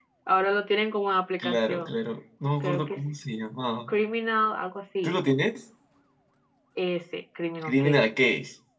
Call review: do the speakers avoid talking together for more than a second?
Yes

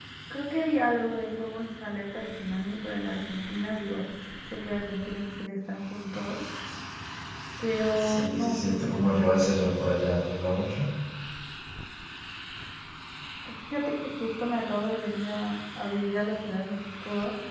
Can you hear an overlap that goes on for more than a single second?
Yes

